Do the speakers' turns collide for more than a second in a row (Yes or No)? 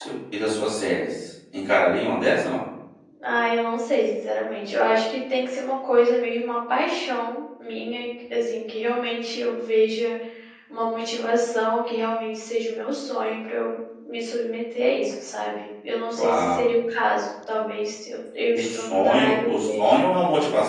Yes